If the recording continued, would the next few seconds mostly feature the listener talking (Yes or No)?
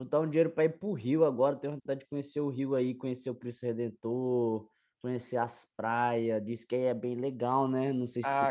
Yes